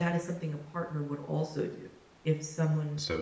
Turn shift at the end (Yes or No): No